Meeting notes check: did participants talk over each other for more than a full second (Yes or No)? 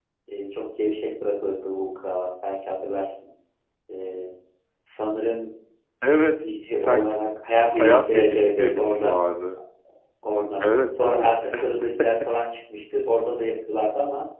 Yes